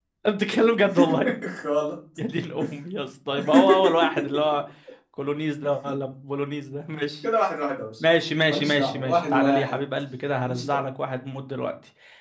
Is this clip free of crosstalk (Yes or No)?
No